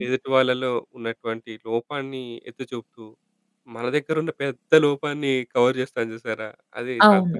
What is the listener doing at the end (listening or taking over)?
taking over